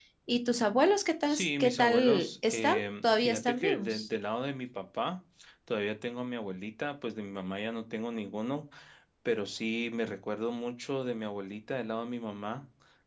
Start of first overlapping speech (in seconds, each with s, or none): 1.3 s